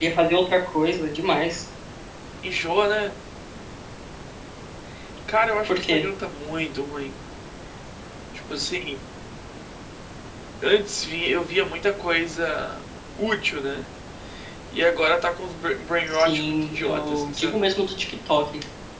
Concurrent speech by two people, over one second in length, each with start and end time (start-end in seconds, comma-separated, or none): 16.1-17.6